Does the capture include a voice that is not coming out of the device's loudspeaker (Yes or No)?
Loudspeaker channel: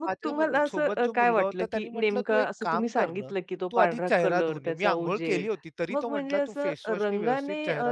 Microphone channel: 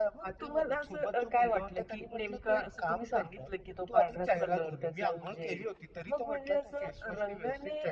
No